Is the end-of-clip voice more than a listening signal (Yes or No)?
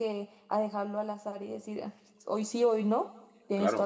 Yes